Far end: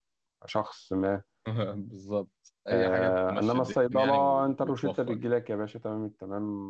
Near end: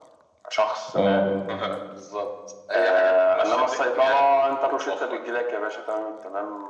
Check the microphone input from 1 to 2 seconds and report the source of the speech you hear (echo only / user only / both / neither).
both